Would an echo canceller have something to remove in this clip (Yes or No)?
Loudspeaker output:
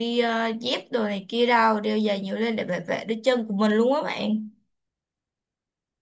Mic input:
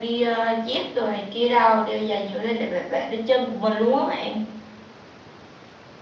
Yes